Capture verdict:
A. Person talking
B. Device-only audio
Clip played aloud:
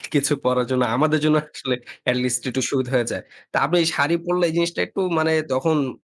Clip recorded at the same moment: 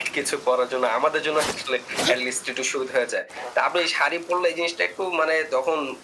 B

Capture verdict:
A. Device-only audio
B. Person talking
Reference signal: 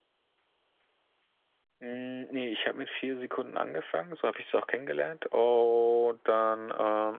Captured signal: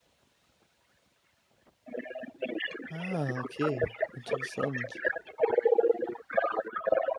B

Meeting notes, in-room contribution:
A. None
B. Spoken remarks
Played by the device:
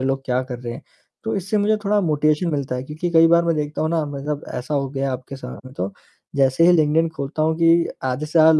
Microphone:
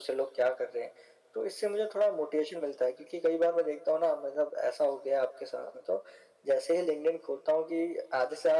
A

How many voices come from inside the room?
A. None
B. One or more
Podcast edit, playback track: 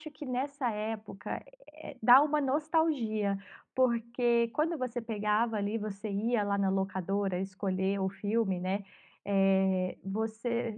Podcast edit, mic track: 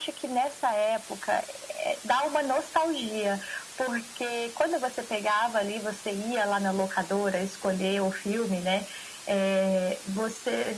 A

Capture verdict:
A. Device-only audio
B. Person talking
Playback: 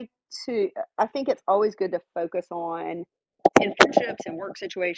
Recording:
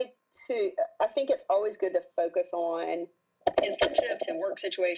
A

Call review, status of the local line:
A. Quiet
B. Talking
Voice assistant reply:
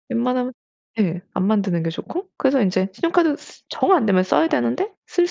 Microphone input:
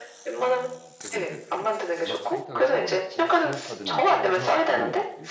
B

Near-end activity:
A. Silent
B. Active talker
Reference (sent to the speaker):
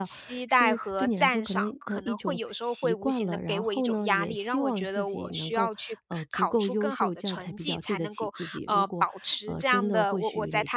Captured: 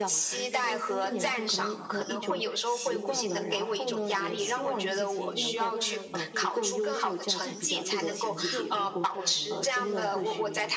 B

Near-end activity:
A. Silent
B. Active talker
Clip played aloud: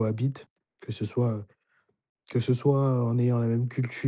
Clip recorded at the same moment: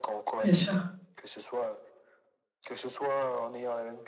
B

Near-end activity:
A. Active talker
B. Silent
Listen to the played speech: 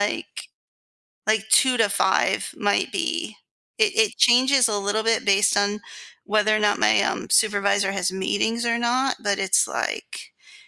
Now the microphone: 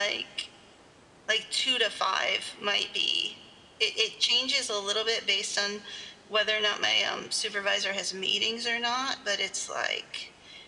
B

